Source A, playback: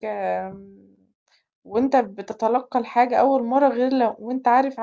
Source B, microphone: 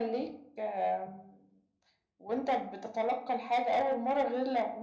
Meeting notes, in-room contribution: none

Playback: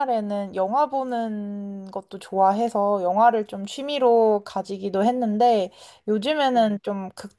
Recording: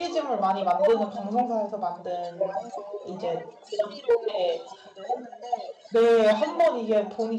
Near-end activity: present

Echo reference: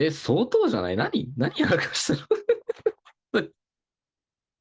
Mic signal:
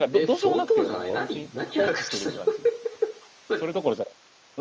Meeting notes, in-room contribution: present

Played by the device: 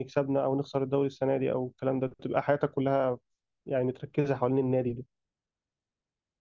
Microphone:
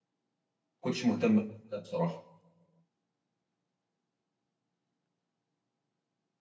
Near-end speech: present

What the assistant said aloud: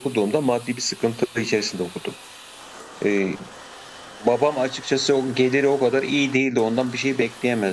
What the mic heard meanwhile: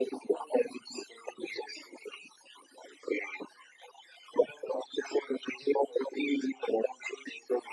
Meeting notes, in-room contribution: none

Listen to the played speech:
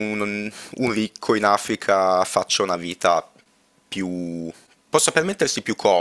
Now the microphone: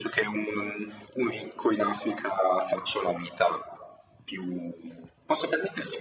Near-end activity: none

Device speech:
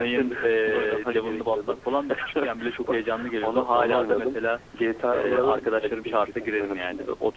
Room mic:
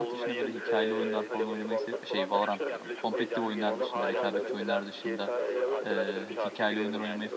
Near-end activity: present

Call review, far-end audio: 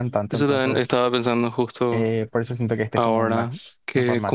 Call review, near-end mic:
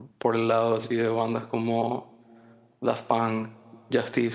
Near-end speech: present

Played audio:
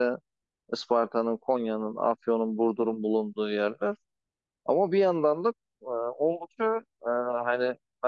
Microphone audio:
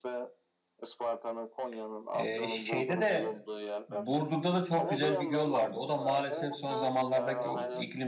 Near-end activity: present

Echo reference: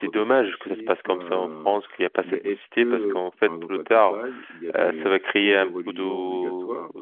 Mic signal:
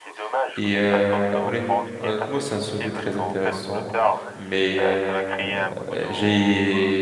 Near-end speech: present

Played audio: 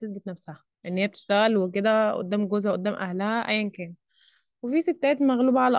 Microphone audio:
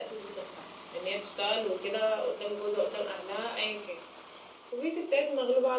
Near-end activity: none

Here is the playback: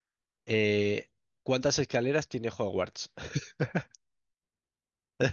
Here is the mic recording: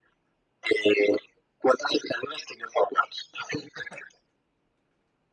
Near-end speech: none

